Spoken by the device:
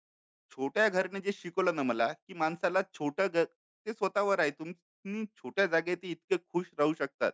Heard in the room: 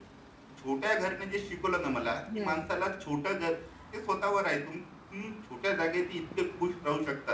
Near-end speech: present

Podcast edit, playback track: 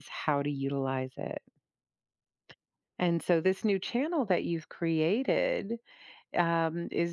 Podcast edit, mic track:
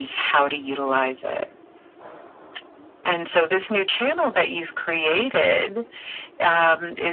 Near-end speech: none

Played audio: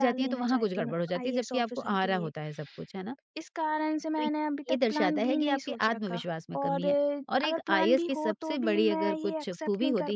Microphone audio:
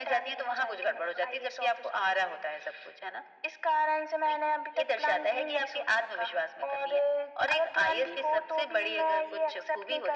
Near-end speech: none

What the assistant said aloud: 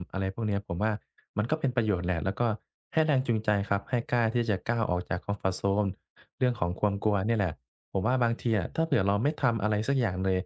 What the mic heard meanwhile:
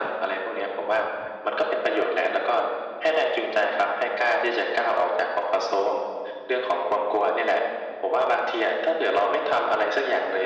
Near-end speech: none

